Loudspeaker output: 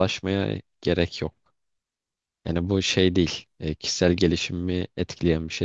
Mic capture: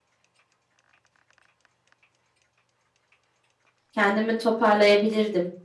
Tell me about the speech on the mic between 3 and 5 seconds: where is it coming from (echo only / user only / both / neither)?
user only